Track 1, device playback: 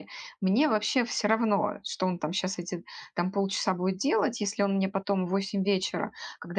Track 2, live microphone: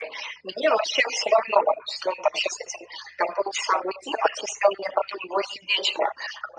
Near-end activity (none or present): none